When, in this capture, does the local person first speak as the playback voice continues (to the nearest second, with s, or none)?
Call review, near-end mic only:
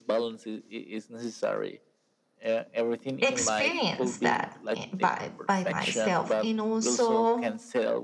3 s